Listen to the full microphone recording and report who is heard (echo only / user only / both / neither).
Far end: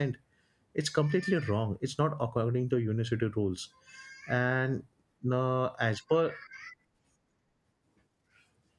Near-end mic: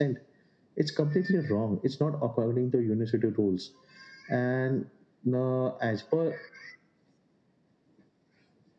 echo only